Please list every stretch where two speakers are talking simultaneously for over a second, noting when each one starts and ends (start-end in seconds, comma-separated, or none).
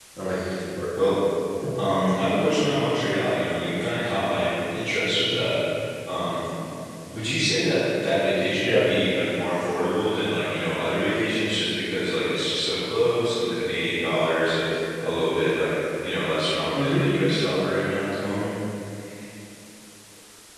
none